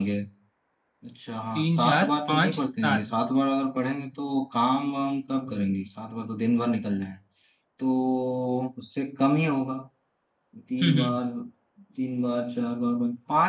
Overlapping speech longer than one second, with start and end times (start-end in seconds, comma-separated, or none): 1.6-3.0